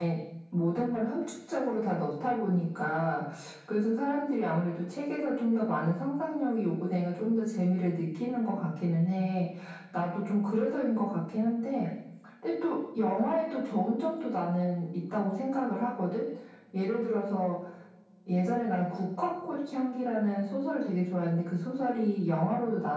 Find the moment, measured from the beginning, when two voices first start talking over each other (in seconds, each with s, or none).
none